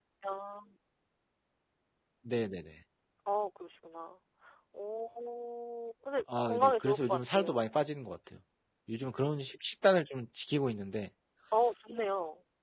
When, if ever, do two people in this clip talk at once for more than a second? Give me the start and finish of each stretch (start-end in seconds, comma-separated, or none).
6.5-7.7